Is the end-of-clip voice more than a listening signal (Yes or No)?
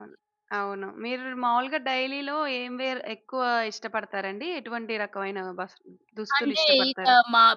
Yes